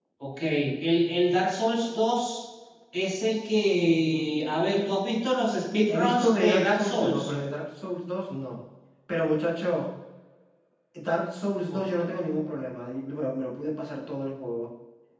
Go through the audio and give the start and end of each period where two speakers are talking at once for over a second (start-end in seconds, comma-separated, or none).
5.9-7.3